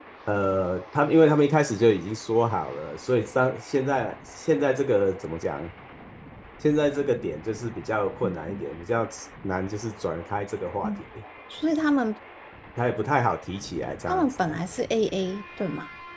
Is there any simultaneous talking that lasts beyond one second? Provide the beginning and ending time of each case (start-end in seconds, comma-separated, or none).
none